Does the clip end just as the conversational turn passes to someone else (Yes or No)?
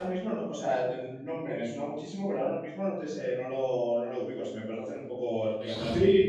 Yes